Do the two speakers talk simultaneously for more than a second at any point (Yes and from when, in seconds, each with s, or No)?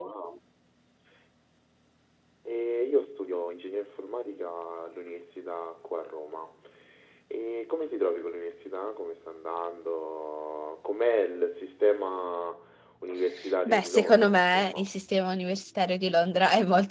Yes, from 13.6 s